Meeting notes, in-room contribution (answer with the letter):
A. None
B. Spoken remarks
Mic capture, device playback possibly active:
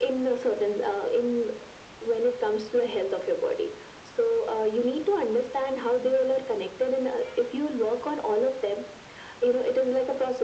A